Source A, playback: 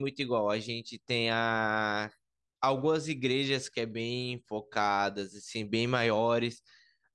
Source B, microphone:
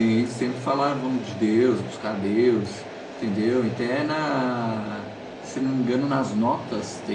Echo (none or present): none